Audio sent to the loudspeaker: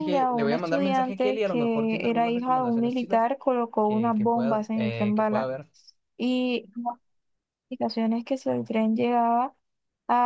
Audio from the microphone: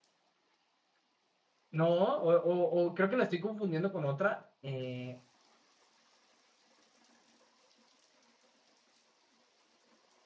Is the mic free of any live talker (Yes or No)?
No